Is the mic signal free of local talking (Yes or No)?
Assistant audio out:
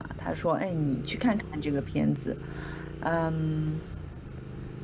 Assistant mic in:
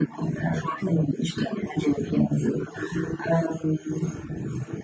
Yes